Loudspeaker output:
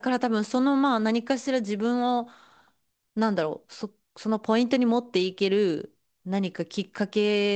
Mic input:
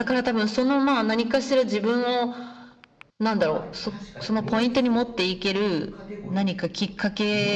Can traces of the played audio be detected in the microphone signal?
Yes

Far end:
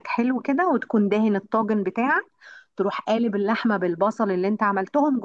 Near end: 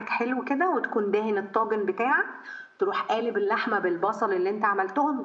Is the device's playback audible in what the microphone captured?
Yes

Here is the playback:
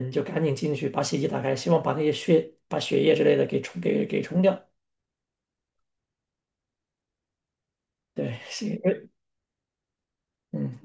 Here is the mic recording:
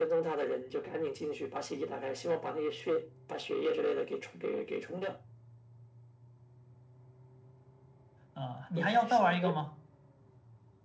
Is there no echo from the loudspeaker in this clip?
No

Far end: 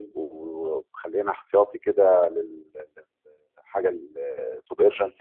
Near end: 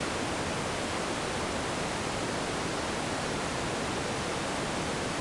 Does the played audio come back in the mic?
No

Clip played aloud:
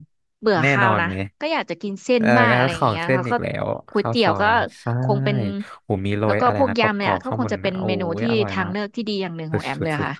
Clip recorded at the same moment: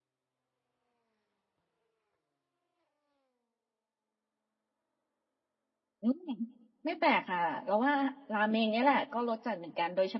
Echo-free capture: Yes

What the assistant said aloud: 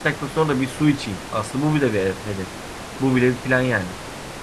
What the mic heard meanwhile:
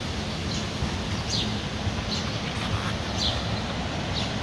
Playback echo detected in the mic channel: No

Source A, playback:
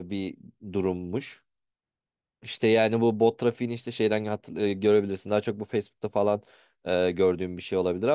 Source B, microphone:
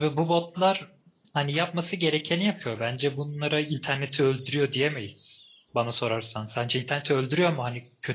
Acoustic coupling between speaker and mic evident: No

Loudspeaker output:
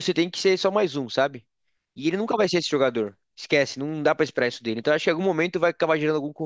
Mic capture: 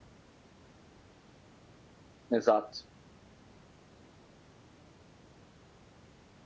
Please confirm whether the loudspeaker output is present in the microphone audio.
No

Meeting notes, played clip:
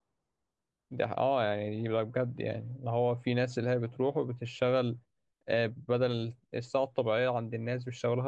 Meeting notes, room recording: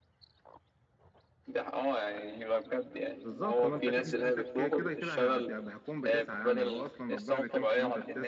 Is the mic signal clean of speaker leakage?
No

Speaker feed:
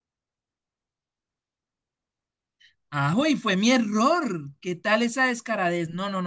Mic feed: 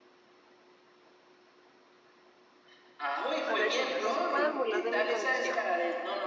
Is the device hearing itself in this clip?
Yes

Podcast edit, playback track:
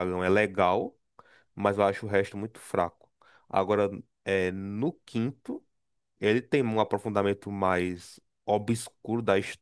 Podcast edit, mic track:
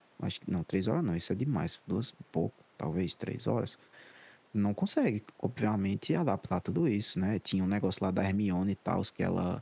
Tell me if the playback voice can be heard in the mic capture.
No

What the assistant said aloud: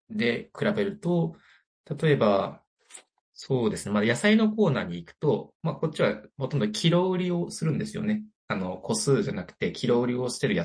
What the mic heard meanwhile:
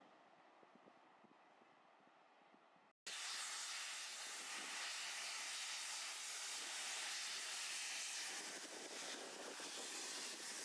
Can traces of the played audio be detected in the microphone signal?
No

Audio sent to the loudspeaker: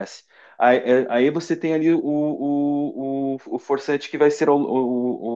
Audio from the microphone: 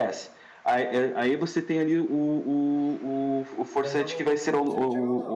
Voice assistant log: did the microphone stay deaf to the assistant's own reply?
No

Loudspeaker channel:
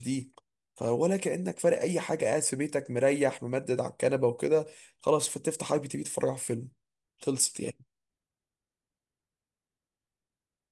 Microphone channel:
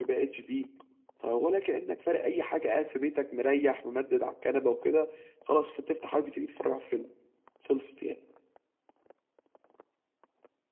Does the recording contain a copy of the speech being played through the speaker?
Yes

